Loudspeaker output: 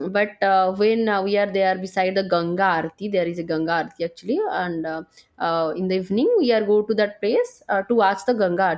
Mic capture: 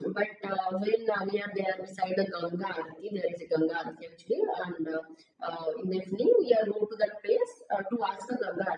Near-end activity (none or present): none